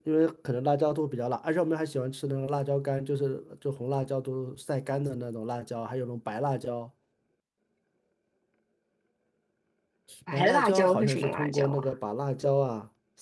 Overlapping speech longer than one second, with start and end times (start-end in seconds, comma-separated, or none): 10.3-11.9